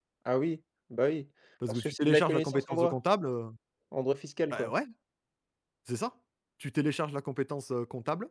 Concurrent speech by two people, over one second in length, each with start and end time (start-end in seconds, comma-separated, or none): 1.7-3.0